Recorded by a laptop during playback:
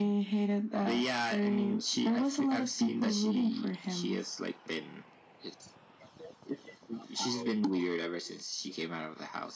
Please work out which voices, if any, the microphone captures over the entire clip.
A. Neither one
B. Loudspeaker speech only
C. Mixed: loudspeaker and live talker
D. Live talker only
B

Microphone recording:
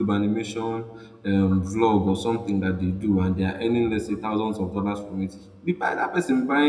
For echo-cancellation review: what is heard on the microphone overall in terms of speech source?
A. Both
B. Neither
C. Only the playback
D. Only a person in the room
D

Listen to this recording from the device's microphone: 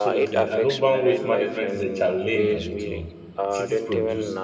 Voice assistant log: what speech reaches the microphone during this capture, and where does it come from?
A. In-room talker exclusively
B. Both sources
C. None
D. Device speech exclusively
B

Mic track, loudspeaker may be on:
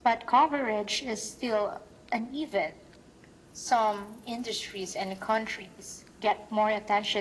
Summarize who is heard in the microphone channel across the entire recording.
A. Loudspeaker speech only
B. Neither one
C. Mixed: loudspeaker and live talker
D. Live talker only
A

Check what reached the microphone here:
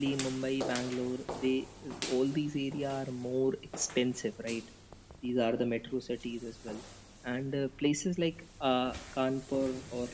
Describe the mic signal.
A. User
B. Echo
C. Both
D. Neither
B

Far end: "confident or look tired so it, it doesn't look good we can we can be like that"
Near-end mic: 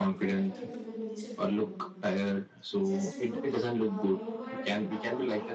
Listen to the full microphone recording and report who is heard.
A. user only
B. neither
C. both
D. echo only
C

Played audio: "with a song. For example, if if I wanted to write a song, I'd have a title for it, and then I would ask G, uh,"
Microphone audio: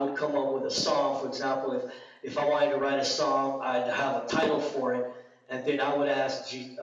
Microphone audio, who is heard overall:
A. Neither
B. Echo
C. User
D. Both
B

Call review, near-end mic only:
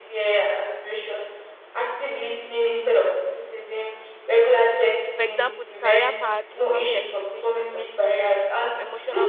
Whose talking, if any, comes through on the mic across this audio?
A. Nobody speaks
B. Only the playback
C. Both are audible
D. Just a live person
C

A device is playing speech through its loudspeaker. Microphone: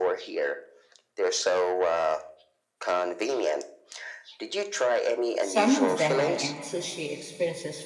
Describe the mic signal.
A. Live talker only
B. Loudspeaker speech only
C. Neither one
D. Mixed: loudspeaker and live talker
D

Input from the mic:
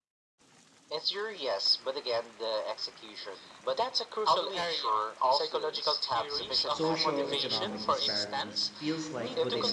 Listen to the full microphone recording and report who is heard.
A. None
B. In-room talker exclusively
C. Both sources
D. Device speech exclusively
C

